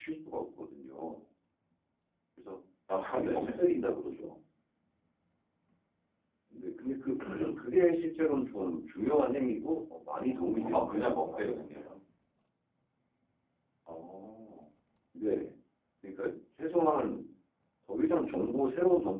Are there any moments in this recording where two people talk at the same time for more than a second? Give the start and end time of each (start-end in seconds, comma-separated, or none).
10.2-11.8